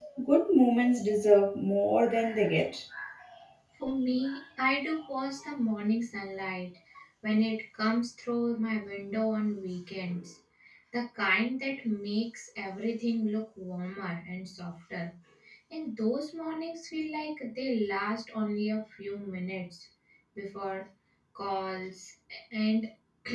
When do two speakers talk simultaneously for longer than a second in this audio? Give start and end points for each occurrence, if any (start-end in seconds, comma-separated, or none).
none